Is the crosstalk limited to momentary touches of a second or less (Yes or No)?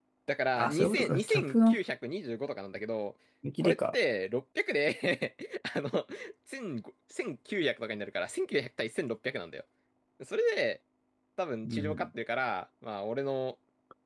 No